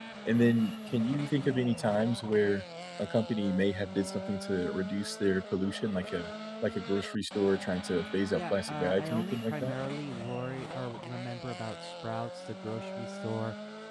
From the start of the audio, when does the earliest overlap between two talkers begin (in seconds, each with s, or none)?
8.3 s